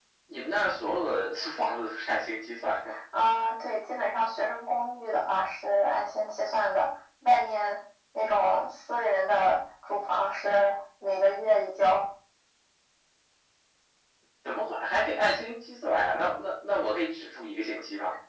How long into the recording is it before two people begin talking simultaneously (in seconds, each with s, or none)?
none